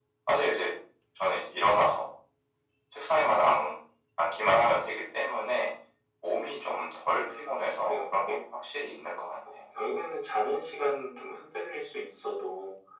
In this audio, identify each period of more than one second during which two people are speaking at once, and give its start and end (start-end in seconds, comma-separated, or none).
7.1-8.4